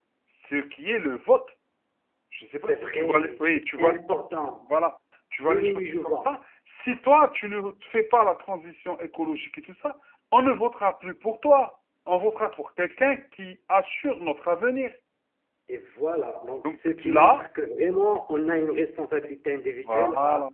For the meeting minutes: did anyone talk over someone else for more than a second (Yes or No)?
Yes